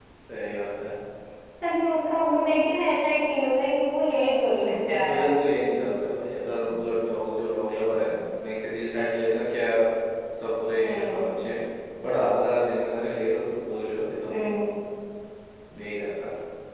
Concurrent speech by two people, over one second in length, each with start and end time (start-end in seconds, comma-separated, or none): none